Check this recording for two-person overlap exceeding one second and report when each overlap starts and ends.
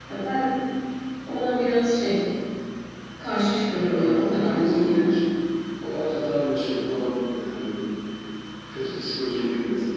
3.7-5.2

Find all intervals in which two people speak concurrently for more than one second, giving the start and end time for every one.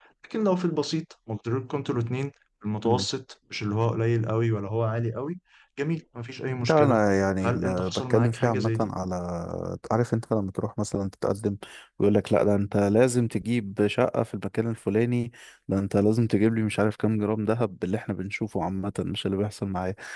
7.4-8.9

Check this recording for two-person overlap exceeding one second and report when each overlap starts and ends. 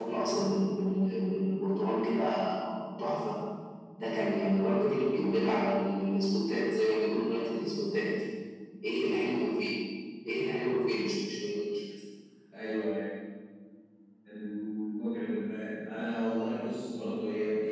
none

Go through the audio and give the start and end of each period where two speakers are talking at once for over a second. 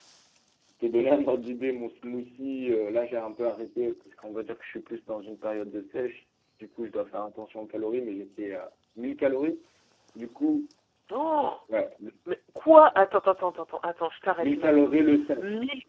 none

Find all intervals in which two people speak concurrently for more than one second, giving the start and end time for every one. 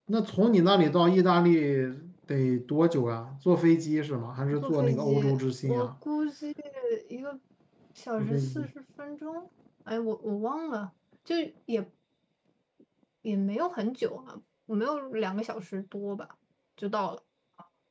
4.6-5.9

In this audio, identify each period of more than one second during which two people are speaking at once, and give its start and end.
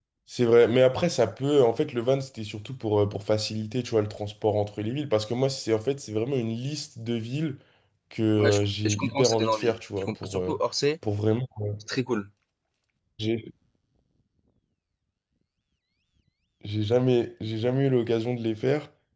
8.4-10.6

